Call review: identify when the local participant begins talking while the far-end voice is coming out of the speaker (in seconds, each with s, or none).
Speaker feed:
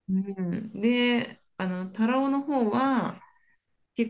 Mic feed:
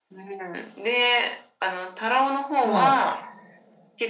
2.6 s